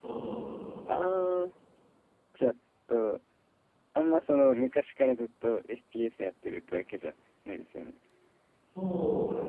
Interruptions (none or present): none